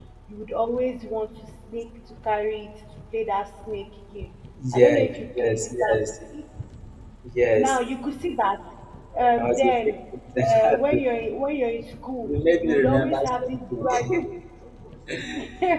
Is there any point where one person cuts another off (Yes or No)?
Yes